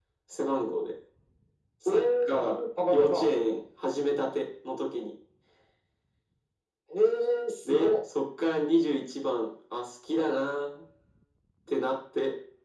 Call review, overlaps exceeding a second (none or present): present